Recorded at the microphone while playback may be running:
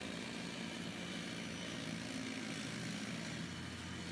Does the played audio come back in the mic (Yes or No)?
No